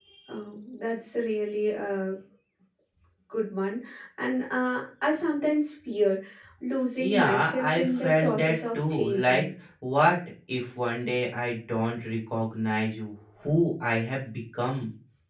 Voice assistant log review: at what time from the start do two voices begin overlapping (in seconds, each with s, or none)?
7.0 s